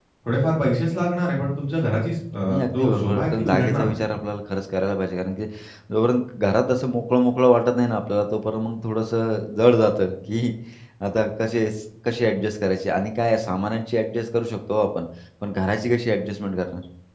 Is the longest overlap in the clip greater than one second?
Yes, from 2.5 s

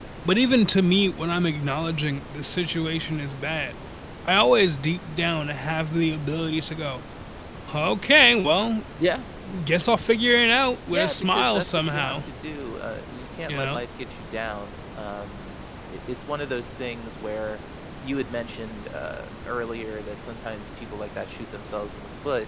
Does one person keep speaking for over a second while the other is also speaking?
Yes, from 10.9 s

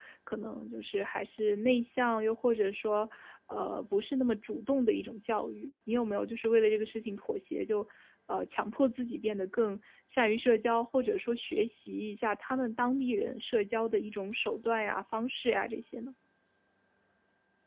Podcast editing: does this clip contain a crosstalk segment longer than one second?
No

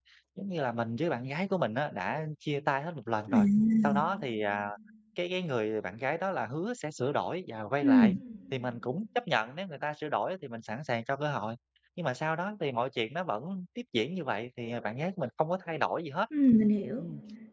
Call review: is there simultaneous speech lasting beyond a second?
No

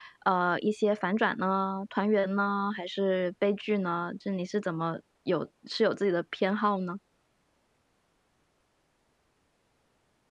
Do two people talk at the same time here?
No

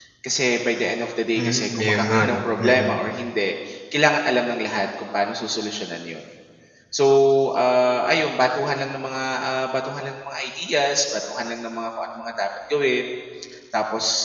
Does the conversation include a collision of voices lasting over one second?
Yes, from 1.4 s

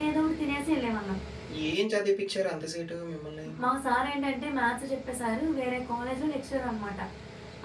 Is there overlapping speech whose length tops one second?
No

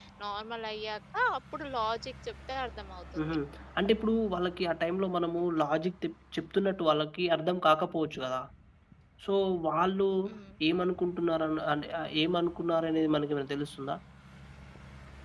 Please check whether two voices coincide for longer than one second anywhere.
No

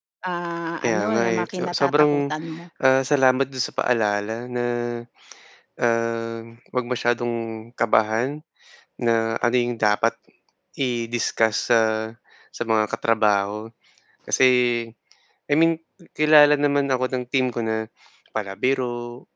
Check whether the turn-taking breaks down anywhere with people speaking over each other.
Yes, from 0.8 s

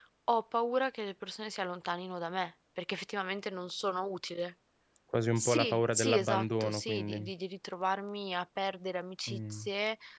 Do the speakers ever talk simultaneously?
Yes, from 5.4 s

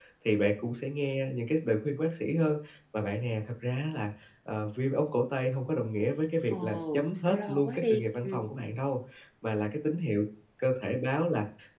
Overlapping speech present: Yes, from 6.5 s

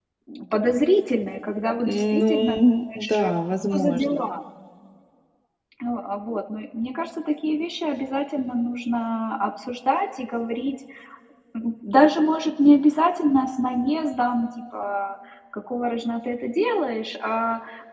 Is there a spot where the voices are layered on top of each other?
Yes, from 1.8 s

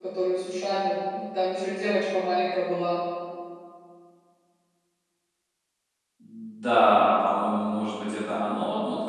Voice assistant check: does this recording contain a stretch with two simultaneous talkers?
No

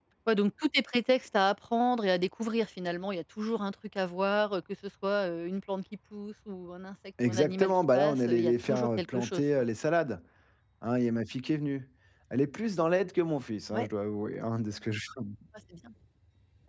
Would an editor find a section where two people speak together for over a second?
Yes, from 7.2 s

